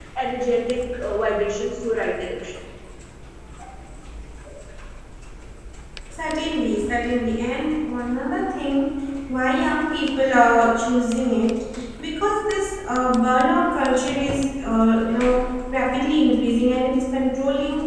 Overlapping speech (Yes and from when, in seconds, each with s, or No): No